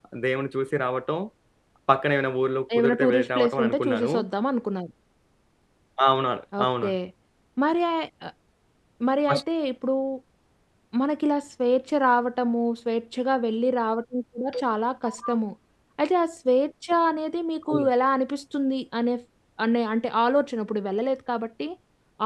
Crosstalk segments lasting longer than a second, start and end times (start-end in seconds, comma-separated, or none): 2.8-4.1